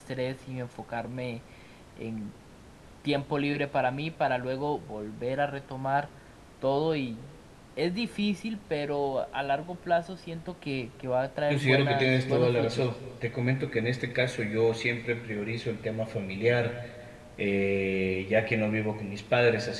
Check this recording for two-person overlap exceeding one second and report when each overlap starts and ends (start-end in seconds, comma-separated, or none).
11.5-12.8